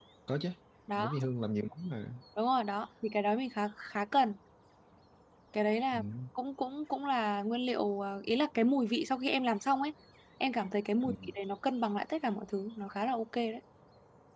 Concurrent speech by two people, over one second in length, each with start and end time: none

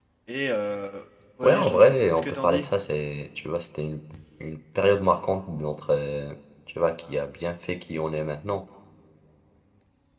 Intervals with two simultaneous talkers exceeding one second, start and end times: 1.4-2.7

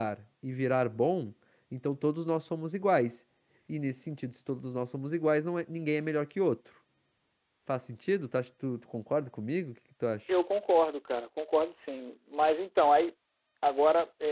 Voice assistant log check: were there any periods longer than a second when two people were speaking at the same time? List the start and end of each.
none

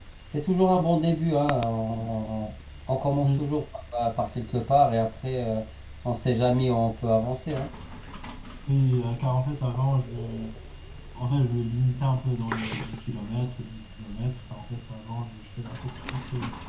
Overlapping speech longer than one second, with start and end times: none

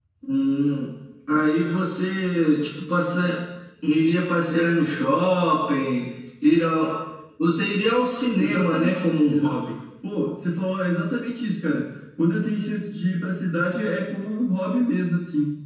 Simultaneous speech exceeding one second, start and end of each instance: 8.3-9.6

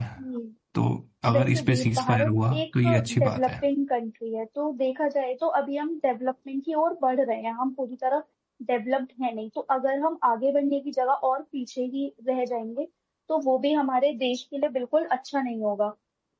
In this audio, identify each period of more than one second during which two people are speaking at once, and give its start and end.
1.3-3.5

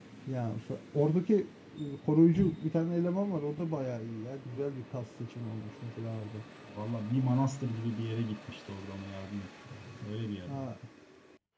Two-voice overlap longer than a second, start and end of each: none

